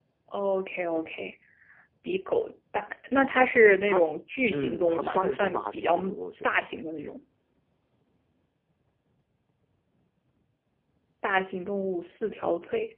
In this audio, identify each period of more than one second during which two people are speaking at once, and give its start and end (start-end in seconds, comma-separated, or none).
4.5-6.0